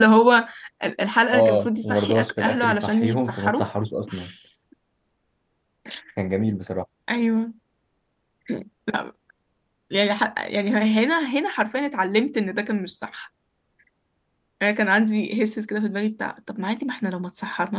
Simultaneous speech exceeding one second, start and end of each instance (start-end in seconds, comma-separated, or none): 1.3-3.6